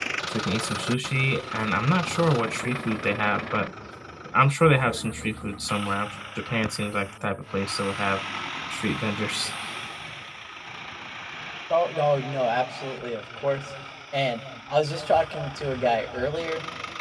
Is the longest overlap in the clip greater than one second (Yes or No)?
No